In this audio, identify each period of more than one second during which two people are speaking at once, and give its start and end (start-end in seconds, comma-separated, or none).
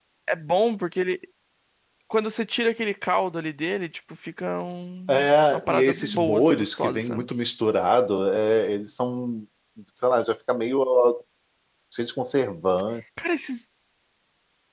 5.1-7.2